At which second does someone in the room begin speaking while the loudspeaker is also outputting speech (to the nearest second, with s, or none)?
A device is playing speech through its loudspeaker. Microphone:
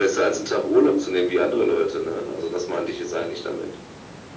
none